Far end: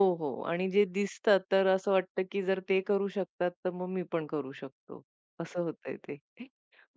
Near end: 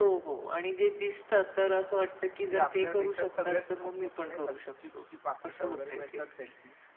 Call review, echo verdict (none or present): present